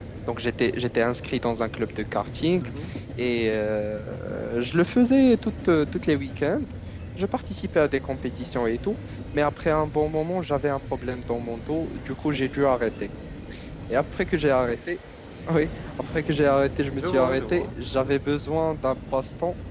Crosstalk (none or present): present